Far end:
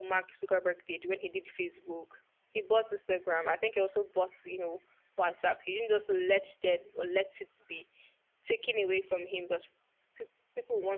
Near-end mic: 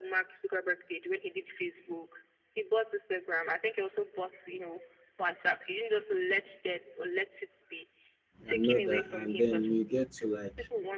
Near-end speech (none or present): present